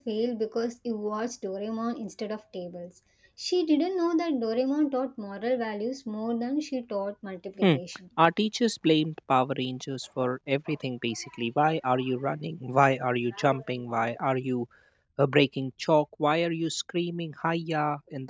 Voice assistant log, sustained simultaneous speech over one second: none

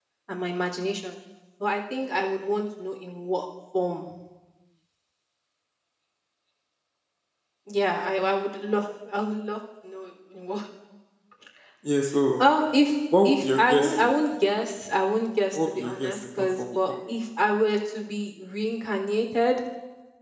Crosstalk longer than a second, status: present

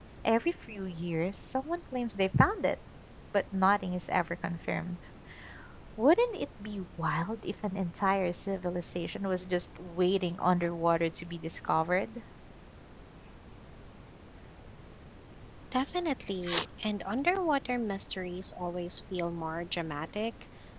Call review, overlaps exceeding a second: none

